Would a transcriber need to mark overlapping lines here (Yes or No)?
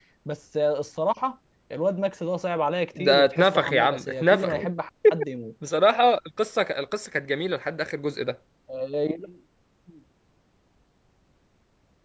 Yes